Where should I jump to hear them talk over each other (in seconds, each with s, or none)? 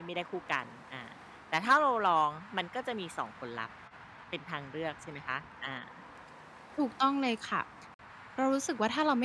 none